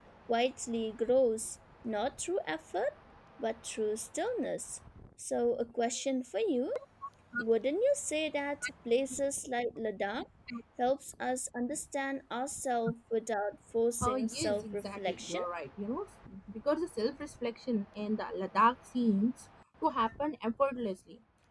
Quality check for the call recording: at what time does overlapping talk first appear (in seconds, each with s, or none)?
14.0 s